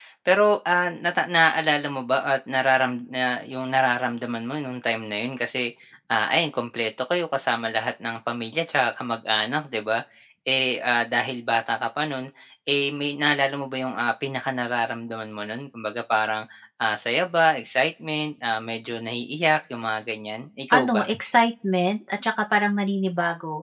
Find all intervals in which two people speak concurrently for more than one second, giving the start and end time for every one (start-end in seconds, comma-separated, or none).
none